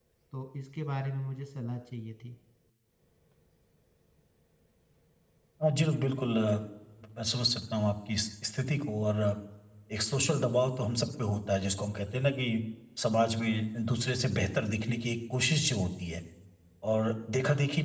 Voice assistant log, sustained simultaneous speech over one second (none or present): none